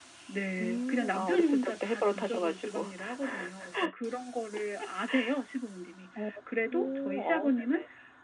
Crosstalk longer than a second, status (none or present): present